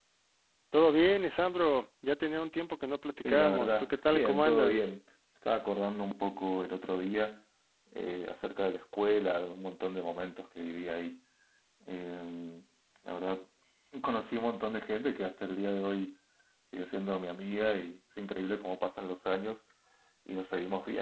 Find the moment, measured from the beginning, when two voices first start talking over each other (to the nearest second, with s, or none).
3 s